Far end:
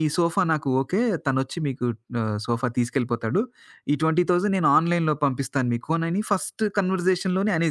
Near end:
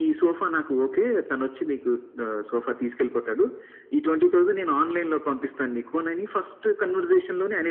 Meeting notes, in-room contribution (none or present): none